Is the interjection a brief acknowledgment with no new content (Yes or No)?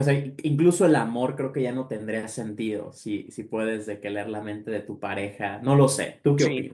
No